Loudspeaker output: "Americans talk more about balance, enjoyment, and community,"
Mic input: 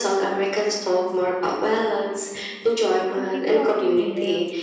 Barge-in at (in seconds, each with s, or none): 3.1 s